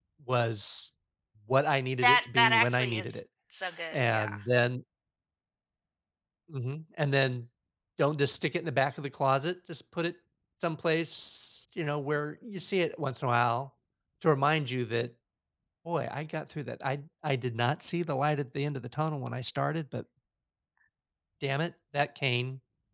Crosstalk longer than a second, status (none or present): present